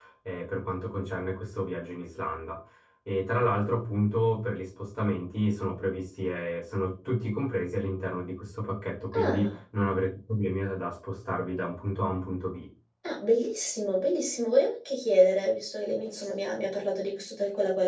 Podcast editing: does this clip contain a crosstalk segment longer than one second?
No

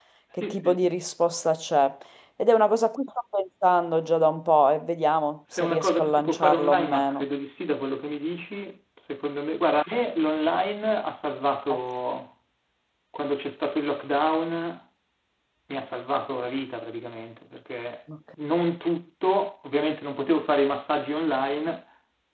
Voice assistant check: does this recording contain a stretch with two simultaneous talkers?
Yes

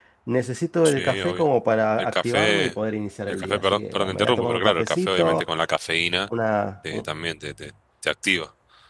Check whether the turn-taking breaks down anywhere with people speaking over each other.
Yes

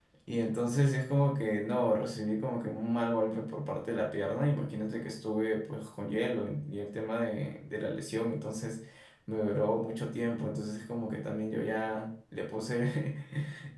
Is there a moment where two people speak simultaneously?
No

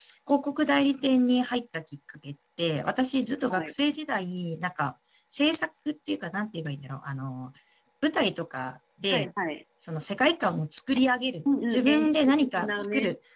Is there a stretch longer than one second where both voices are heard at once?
Yes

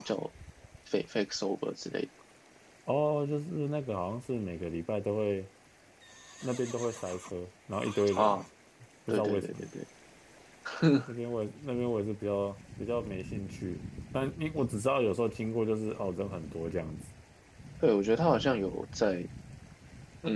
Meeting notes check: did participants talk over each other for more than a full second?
No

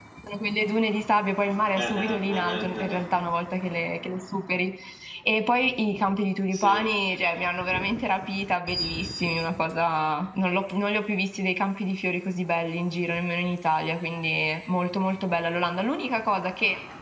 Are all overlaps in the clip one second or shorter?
No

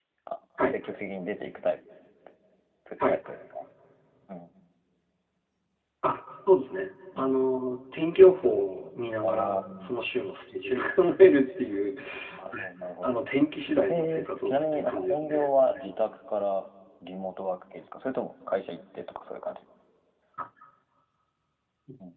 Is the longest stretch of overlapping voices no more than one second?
No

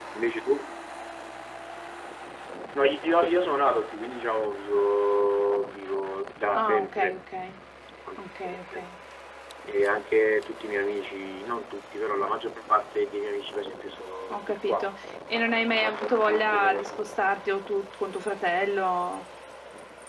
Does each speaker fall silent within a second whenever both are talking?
No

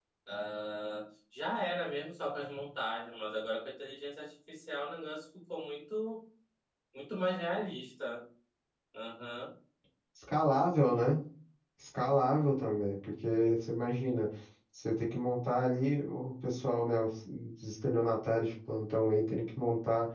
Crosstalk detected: No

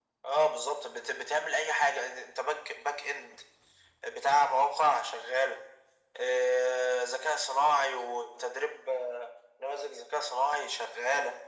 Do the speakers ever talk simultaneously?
No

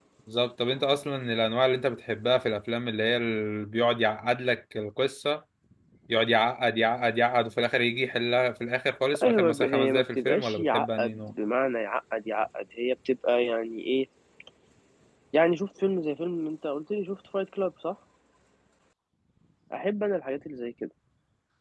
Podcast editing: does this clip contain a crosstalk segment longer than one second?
Yes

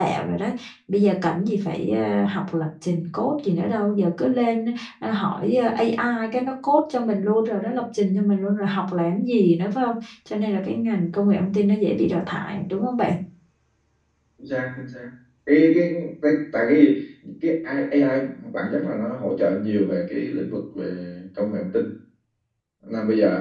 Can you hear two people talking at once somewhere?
No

